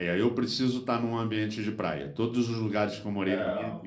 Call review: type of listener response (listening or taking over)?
listening